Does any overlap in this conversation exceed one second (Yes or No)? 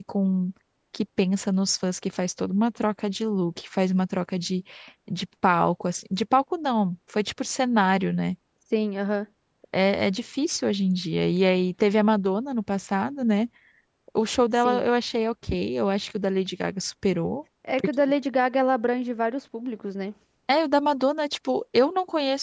No